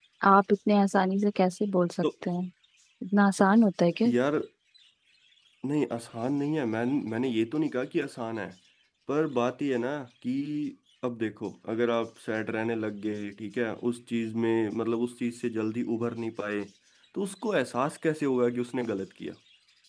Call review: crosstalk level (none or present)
none